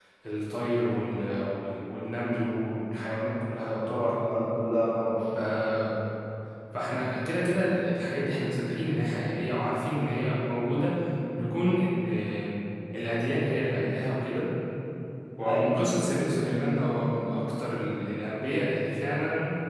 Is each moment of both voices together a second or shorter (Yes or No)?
Yes